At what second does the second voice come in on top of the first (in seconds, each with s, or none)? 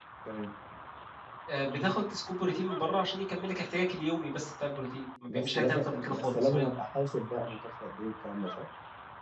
5.3 s